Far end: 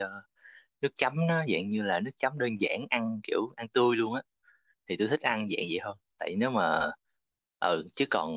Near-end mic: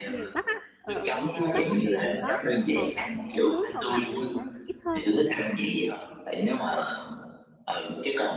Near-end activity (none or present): present